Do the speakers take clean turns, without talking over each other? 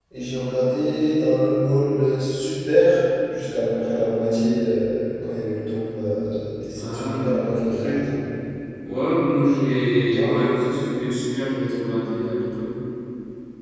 No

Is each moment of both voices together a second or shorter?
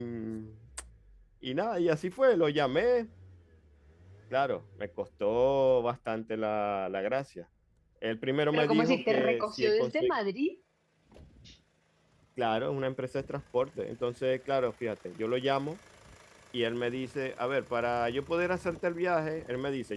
No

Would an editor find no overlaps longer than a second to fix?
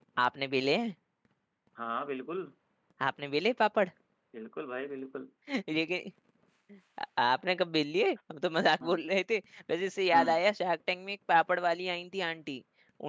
Yes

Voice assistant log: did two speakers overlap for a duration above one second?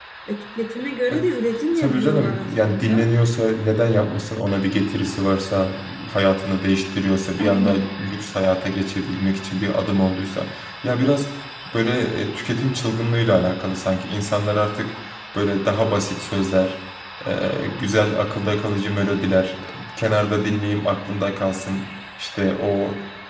Yes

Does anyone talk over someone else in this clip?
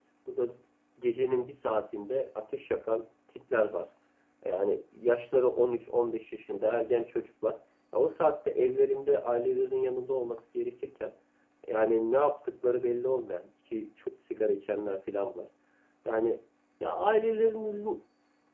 No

